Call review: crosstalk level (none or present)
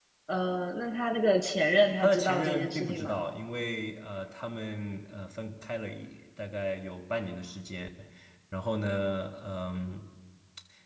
present